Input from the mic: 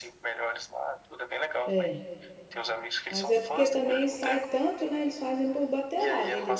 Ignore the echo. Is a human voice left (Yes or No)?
Yes